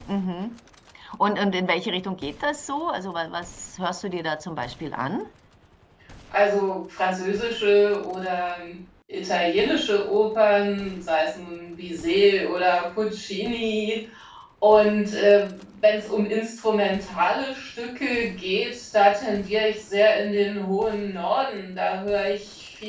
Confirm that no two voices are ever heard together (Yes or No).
Yes